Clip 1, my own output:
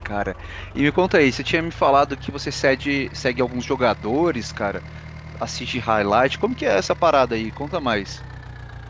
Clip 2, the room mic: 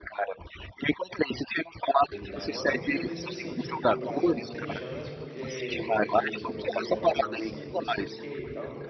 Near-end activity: present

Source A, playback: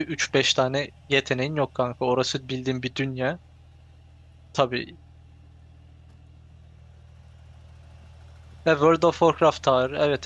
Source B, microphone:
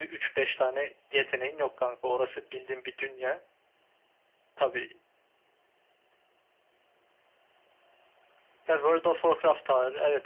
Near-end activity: none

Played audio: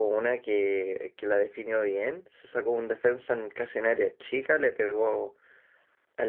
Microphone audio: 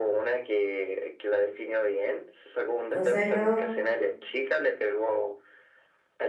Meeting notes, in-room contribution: present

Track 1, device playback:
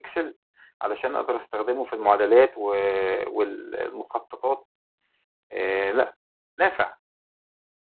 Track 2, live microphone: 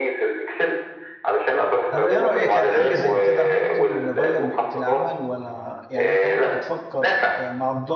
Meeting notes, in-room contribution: present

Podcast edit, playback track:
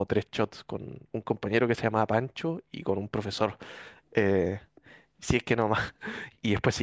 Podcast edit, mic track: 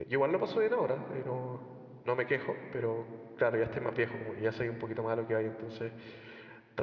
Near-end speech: present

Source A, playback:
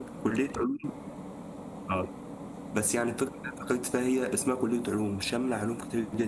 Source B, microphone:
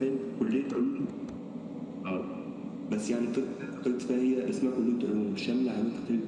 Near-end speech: none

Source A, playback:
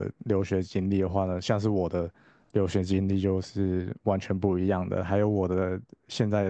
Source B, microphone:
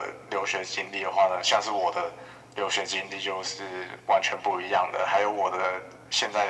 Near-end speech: none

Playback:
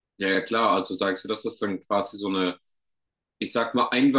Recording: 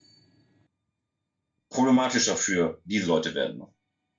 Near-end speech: present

